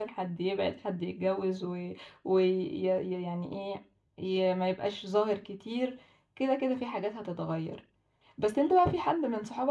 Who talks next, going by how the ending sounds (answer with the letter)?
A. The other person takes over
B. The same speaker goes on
B